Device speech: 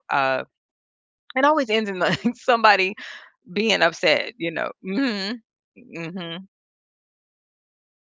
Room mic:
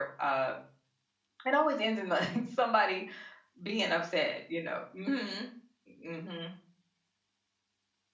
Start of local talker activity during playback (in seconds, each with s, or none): none